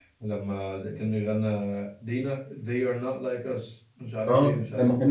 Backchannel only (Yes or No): No